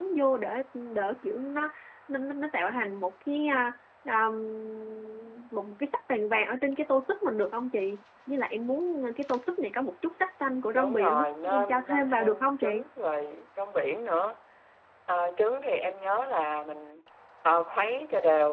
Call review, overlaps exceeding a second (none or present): present